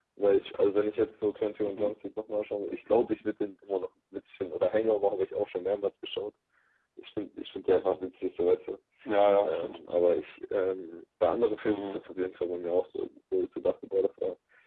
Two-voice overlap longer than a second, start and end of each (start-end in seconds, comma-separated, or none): none